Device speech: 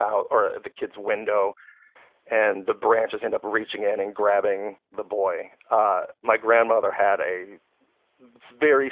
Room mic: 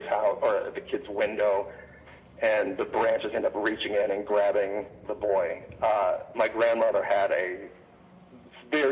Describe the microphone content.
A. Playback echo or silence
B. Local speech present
A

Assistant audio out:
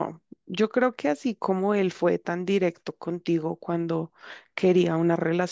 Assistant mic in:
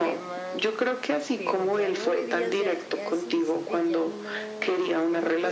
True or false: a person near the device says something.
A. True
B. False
A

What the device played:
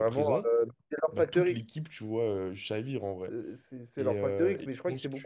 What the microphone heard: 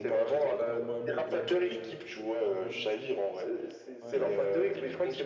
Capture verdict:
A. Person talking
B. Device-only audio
A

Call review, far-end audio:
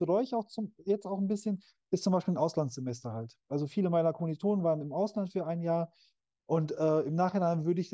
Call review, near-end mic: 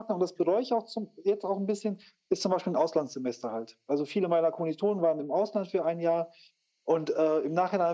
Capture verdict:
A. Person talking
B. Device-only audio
B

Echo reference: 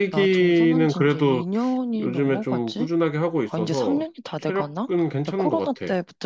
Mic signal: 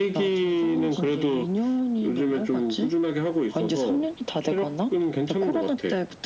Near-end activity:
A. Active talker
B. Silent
B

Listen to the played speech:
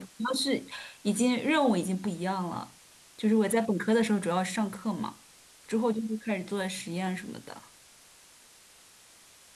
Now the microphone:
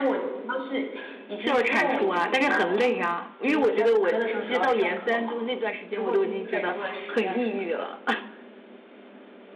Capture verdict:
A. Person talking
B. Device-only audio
A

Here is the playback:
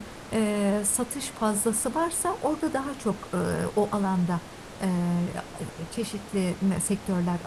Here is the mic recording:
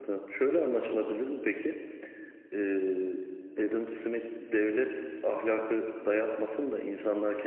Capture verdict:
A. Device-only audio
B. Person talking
B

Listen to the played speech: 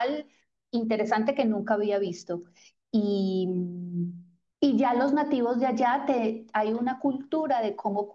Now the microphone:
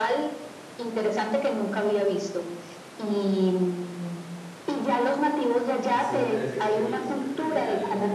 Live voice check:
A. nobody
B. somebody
B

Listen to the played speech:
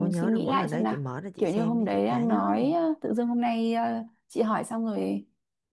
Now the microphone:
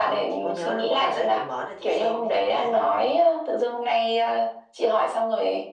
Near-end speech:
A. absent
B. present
A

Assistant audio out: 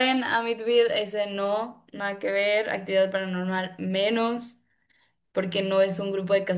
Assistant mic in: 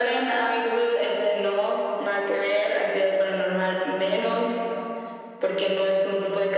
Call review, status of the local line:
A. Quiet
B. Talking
A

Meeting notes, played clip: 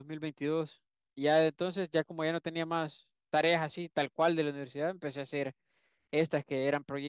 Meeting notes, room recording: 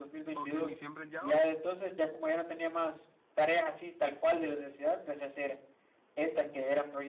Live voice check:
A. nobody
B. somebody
B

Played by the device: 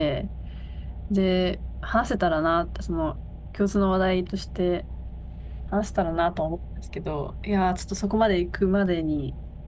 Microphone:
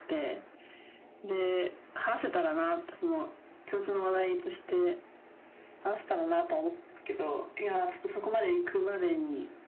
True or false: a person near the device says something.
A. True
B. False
B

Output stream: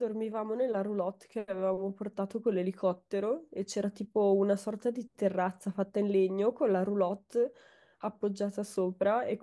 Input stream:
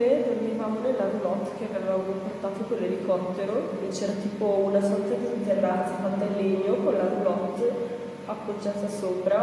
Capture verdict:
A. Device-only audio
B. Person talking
A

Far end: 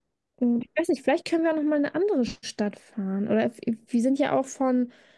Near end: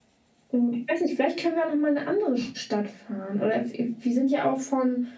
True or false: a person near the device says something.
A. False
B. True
A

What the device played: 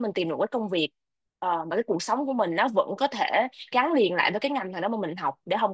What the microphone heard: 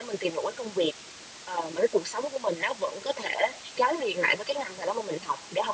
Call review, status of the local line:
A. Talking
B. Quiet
B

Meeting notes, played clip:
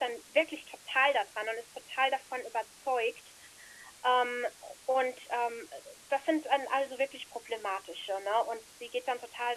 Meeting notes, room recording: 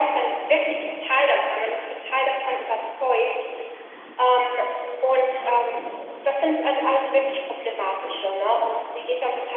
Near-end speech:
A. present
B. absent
B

